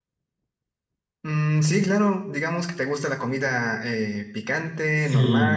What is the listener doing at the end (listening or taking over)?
taking over